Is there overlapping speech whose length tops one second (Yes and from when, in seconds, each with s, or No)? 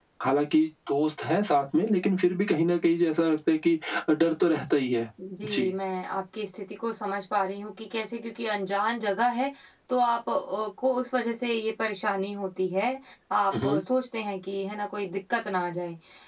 No